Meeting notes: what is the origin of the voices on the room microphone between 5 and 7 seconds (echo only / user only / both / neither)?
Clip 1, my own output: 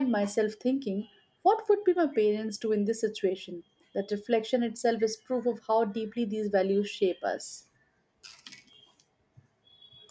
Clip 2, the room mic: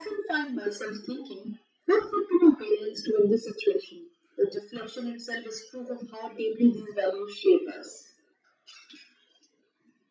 echo only